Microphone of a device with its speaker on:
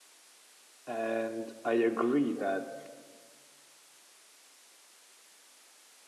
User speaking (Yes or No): Yes